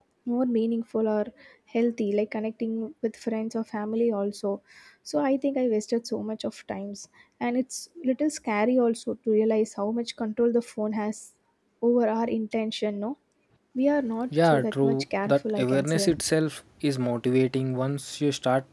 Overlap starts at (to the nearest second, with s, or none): 14 s